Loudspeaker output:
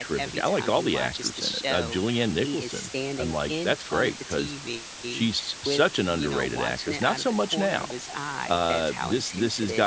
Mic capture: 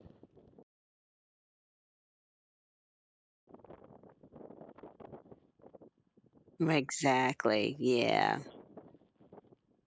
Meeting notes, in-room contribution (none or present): present